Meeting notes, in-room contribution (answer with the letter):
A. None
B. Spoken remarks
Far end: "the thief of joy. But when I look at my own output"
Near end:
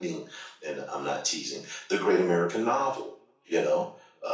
B